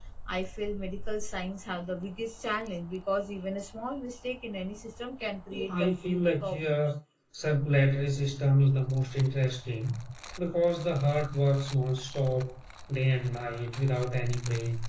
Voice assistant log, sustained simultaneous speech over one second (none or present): present